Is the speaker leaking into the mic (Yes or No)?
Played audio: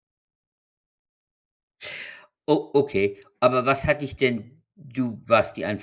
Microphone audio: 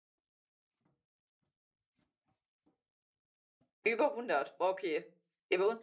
No